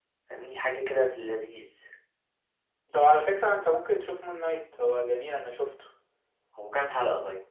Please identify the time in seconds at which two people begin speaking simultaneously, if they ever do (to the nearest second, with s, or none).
none